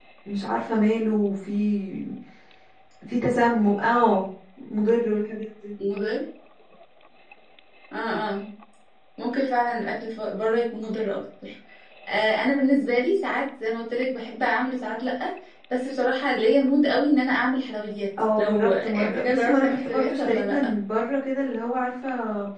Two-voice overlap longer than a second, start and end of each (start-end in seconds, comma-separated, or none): 18.4-20.6